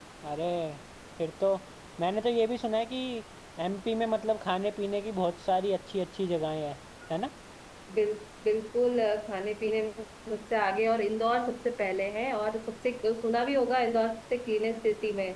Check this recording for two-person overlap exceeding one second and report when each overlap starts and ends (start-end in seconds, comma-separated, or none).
none